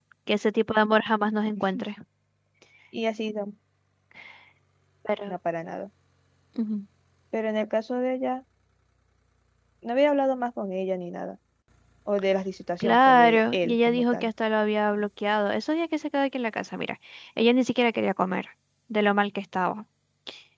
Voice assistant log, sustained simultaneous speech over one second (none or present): present